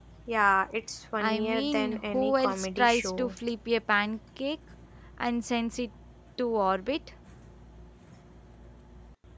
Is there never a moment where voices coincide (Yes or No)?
No